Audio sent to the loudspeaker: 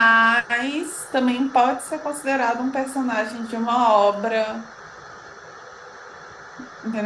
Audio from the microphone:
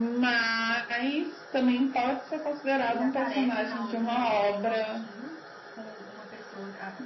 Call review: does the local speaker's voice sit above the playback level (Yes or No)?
No